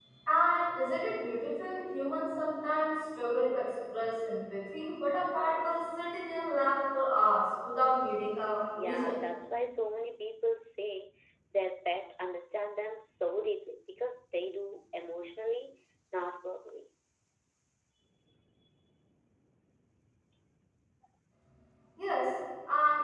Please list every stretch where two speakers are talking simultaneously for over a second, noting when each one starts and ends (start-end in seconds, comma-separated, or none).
none